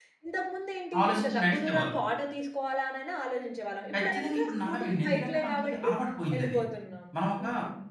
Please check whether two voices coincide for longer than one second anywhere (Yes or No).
Yes